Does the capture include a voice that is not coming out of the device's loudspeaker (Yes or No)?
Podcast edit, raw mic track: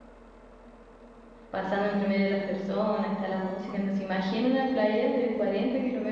Yes